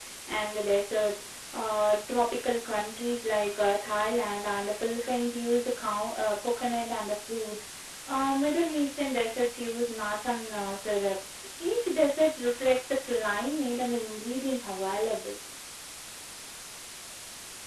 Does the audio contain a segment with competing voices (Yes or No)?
No